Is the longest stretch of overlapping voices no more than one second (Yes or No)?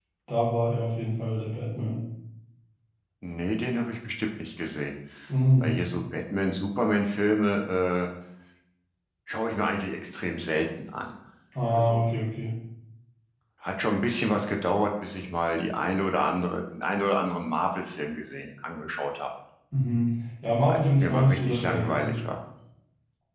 No